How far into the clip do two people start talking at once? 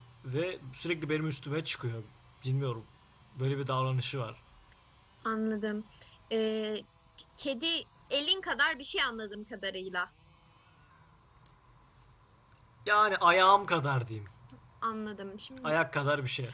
none

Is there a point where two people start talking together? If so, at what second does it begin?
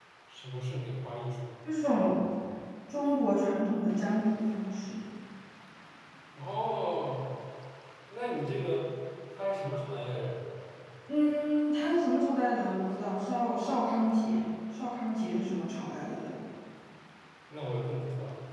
none

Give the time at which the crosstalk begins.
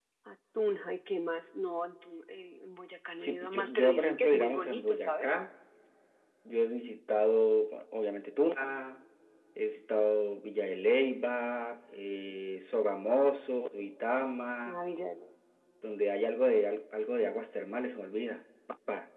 3.2 s

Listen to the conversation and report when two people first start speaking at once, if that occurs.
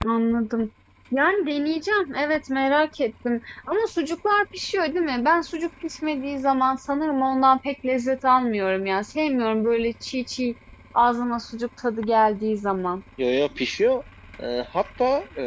none

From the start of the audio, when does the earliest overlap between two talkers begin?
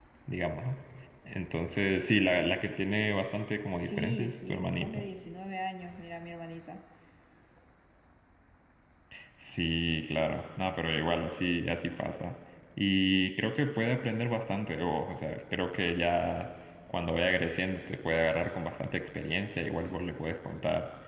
3.8 s

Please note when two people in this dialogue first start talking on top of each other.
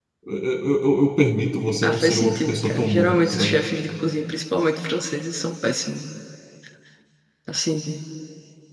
1.8 s

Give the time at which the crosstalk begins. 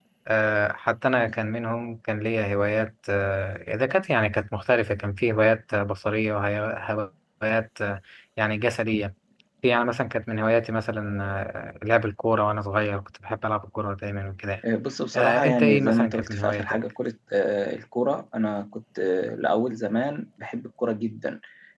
15.1 s

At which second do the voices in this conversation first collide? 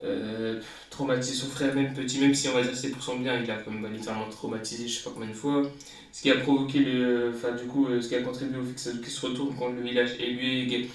none

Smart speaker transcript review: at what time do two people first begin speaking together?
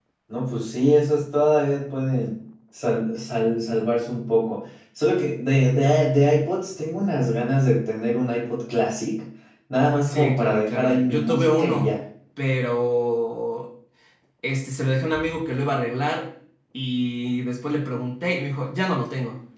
10.1 s

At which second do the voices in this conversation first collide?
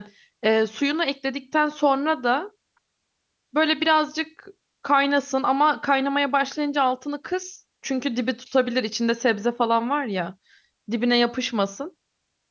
none

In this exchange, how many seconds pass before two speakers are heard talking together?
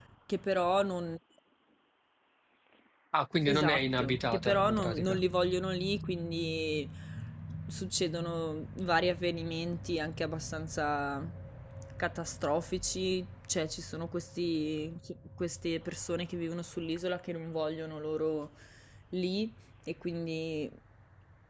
3.4 s

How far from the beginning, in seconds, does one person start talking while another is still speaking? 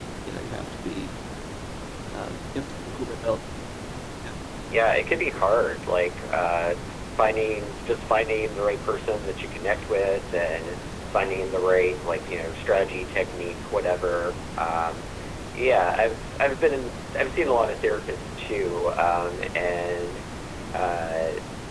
none

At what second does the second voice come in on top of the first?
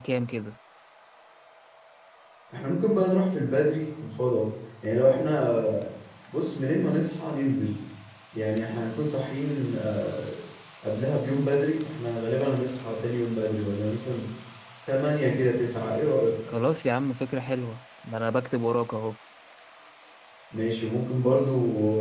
none

